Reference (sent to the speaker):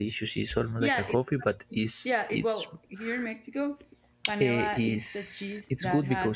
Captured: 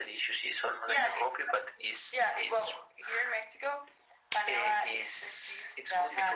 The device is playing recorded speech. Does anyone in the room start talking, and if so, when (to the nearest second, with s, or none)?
none